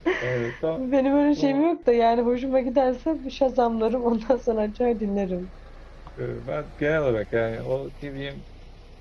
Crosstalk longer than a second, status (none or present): none